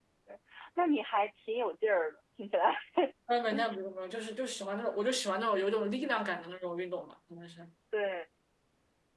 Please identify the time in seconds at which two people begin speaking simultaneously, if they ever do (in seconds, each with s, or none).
none